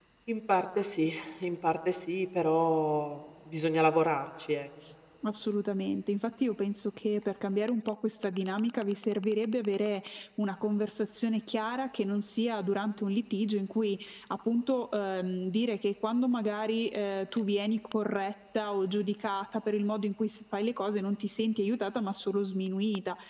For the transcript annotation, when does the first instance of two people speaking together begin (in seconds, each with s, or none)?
none